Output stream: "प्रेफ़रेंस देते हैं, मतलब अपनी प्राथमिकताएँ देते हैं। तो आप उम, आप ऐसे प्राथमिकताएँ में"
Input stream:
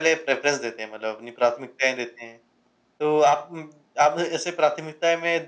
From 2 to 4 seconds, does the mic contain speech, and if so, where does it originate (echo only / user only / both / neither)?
echo only